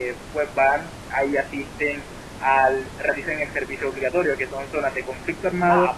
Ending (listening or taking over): taking over